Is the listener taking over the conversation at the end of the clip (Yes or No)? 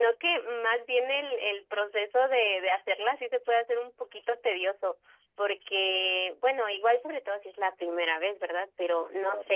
No